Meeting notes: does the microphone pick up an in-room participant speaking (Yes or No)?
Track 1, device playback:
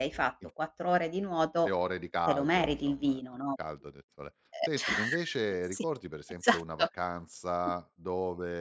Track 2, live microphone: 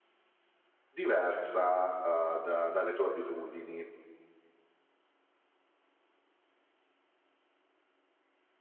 Yes